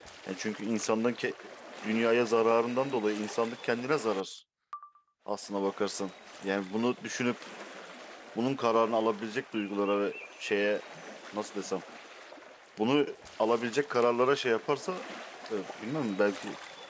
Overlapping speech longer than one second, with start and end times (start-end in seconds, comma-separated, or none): none